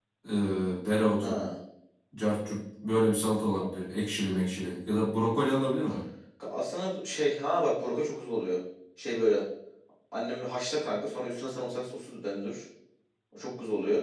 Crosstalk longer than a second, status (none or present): none